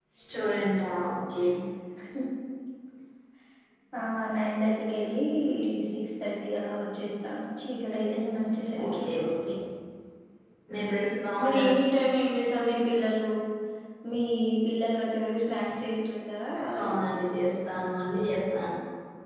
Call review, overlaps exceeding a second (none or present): none